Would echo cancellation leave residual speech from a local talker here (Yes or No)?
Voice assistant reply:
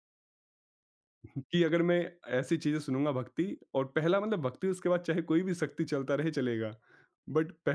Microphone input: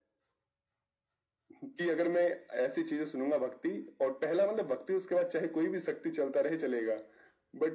No